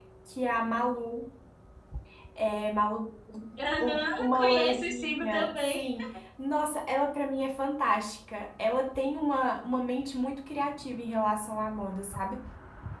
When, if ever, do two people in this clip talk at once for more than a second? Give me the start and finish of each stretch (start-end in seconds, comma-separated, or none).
3.8-5.8